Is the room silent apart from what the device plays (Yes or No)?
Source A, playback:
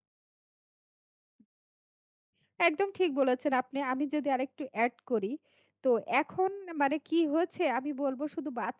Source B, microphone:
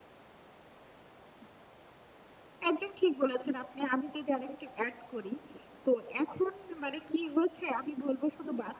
Yes